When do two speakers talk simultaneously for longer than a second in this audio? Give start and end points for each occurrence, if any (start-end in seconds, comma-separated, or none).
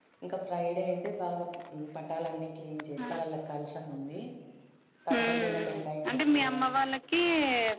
5.2-6.5